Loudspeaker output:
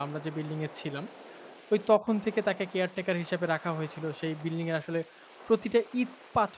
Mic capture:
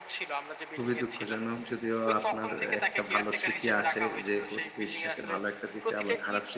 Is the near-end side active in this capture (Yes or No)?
Yes